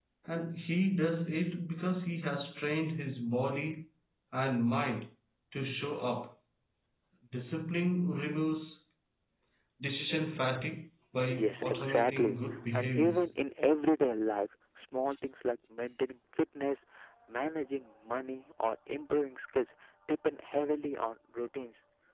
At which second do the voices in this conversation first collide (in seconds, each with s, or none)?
11.3 s